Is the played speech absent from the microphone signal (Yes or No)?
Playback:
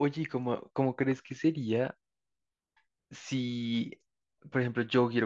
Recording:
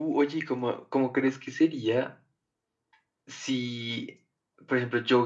No